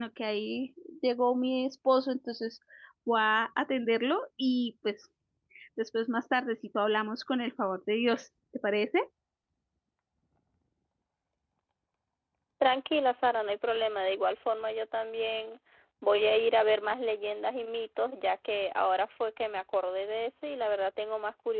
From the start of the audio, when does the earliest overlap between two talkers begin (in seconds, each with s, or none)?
none